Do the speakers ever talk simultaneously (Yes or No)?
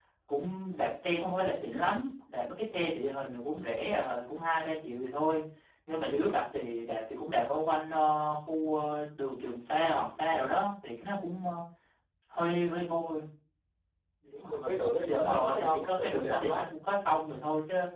Yes